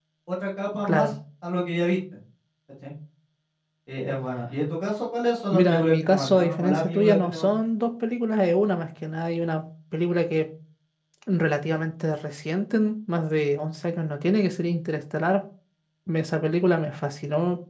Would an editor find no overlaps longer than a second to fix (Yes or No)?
No